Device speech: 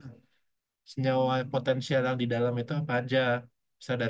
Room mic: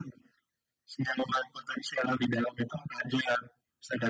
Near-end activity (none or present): none